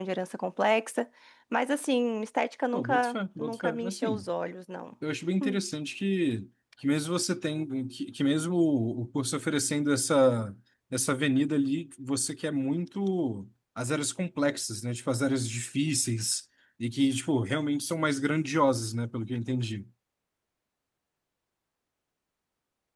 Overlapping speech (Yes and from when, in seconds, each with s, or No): Yes, from 2.7 s